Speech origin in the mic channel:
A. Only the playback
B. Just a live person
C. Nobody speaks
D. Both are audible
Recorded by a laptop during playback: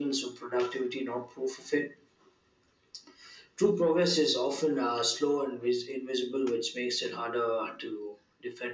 A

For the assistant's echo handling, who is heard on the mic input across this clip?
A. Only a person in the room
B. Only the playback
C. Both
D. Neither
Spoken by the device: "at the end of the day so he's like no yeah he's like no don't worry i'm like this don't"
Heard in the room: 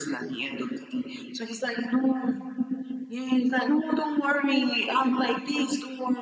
B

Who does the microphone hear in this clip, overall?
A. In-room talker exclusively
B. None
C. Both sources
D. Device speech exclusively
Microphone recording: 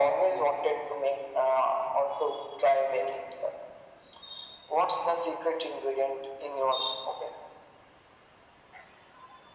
D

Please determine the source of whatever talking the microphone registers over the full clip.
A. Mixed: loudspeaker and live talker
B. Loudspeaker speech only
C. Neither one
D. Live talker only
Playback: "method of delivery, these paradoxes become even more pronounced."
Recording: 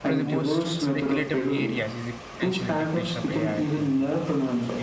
A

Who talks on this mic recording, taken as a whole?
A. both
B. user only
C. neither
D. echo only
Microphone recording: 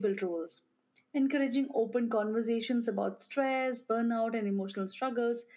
D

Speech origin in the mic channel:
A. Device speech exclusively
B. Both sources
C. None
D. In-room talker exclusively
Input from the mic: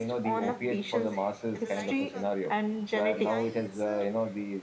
B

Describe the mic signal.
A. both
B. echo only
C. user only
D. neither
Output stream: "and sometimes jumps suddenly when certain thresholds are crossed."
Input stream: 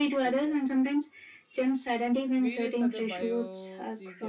A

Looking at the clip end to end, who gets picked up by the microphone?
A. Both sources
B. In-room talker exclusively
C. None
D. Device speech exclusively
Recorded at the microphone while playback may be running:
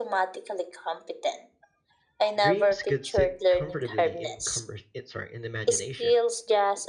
A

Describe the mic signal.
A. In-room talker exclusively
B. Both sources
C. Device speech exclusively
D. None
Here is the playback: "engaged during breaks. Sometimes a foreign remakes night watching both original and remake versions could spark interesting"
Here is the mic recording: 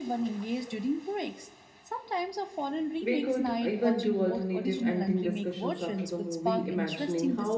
B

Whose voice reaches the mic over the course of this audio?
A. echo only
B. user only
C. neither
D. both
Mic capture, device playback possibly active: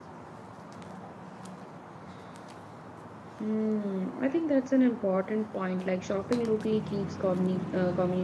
B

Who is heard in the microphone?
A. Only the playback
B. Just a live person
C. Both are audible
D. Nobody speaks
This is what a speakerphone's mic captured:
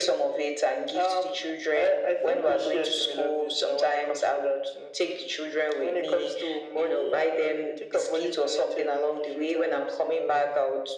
A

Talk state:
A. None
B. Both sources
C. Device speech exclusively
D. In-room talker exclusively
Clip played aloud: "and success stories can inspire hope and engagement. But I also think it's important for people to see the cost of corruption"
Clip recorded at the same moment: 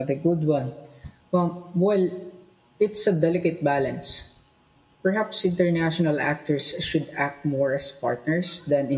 D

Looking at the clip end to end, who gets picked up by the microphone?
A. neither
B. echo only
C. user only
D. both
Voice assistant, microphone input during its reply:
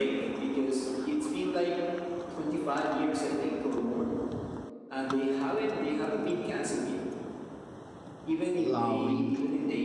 D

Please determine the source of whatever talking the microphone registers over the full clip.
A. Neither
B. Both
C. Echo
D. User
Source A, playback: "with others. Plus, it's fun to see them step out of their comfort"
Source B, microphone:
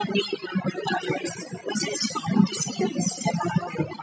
C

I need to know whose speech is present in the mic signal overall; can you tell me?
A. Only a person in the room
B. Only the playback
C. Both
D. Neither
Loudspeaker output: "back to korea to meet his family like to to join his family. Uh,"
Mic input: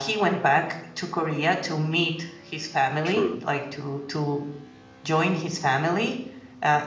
C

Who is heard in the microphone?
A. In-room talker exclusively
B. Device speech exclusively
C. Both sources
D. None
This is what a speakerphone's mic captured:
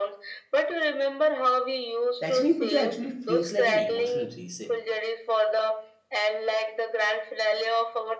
C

